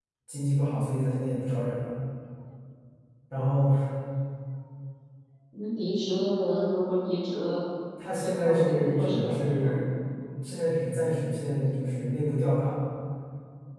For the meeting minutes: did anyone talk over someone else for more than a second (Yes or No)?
Yes